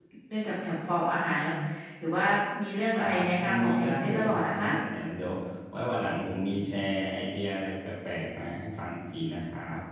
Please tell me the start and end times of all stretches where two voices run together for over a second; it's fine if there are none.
3.0-4.7

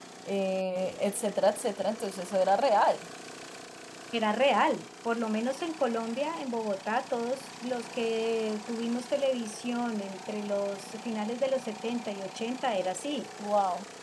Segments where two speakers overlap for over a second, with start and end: none

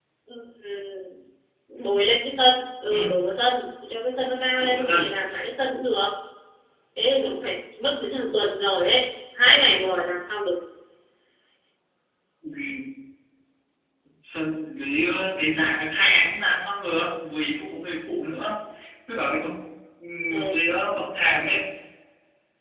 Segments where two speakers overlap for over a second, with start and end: none

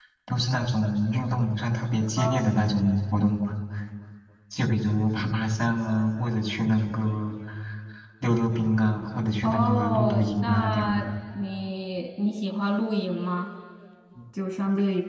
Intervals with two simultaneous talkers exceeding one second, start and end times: 9.4-11.1

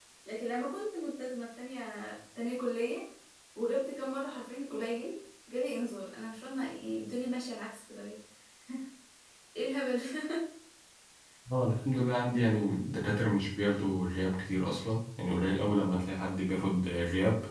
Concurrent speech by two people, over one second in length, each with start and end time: none

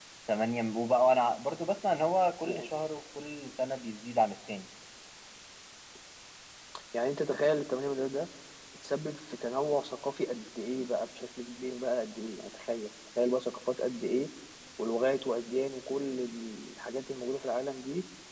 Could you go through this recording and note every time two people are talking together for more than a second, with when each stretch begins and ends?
none

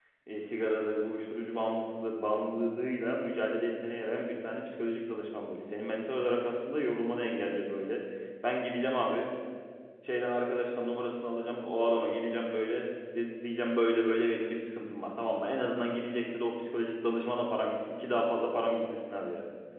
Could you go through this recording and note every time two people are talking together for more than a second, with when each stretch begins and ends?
none

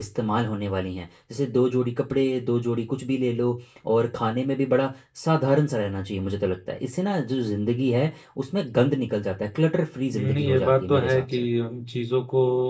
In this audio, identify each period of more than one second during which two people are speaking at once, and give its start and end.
10.1-11.4

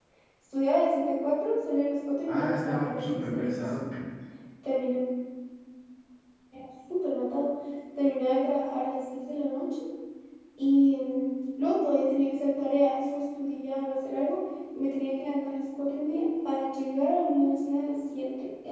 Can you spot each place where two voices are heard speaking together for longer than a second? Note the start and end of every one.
2.3-3.6

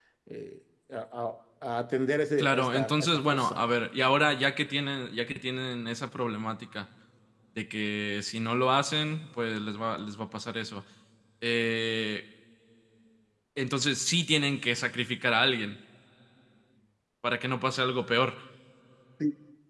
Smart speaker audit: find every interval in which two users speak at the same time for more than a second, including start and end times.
2.4-3.6

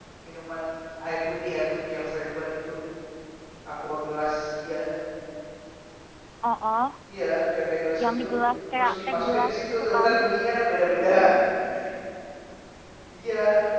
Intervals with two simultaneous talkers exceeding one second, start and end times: 8.8-10.1

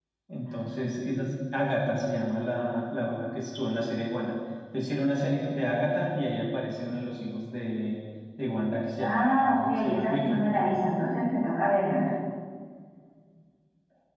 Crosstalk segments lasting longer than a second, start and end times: 9.0-10.5

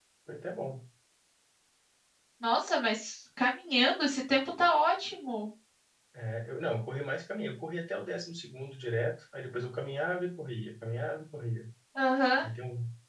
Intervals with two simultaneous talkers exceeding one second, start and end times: none

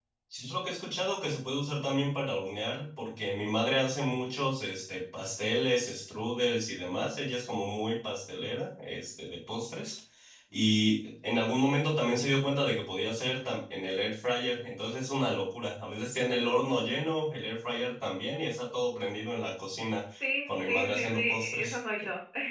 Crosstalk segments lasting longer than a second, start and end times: 20.5-21.8

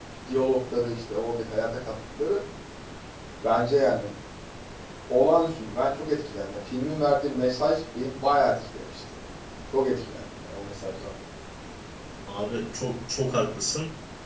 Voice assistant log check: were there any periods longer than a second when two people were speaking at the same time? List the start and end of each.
none

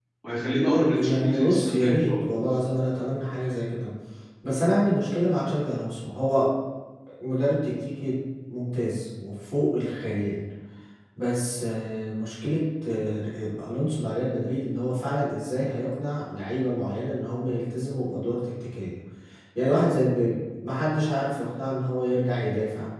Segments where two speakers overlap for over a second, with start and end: 0.9-2.3

